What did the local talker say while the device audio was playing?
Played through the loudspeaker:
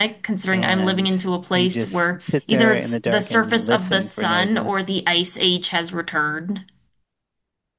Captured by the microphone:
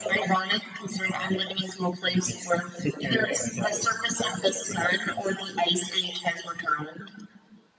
none

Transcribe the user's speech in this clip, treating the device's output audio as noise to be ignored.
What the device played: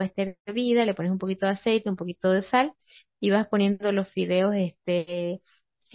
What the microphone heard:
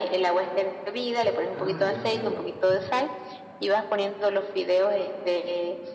Ah, ya, bárbaro.

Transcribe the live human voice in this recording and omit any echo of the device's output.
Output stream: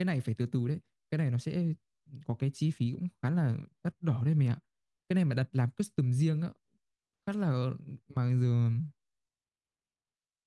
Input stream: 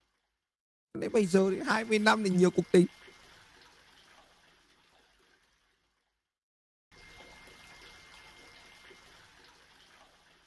đấy bây giờ thì hai mươi năm thì nhiều cuộc tình

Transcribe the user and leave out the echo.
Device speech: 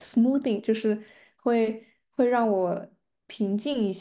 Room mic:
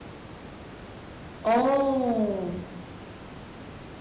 哦，

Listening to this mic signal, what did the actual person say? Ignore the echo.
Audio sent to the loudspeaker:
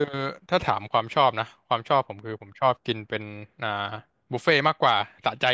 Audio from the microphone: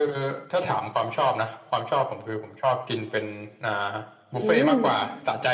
อืม

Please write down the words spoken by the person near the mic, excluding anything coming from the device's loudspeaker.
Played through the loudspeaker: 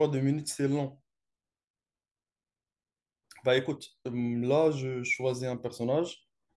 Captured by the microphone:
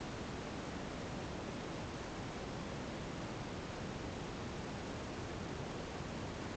none

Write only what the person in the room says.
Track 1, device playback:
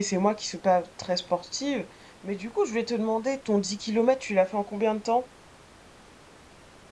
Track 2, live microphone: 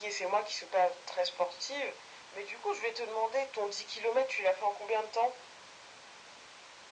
none

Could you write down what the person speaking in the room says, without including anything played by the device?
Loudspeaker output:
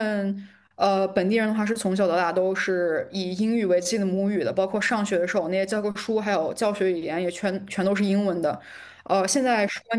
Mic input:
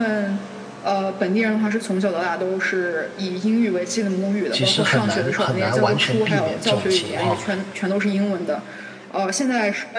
其实很难很难完全避免这种情况，

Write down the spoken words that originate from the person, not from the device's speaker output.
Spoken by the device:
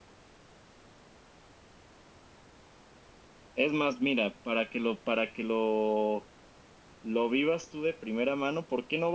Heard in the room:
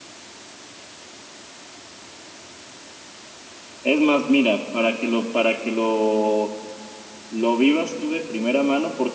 none

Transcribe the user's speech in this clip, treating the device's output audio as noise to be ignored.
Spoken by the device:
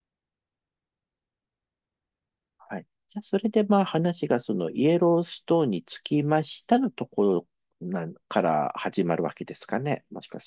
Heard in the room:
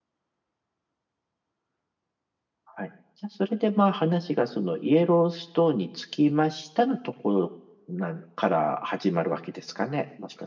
none

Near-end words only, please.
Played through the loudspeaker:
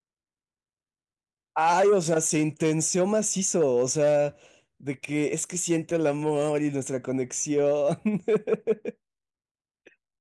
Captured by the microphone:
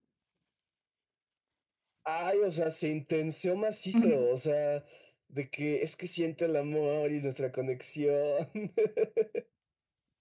ujú,

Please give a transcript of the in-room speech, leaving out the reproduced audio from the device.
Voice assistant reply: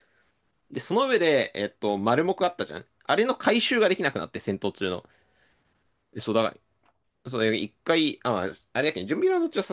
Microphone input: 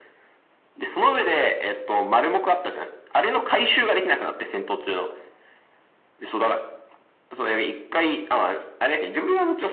none

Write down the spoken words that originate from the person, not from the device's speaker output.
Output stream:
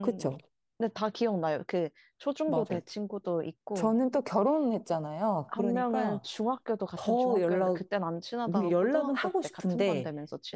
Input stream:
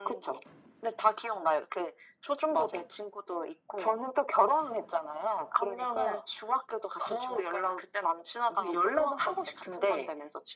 none

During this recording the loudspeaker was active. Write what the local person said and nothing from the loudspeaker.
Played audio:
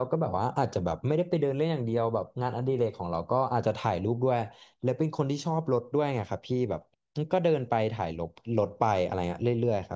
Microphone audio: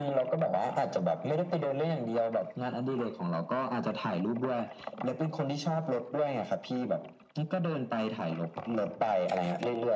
none

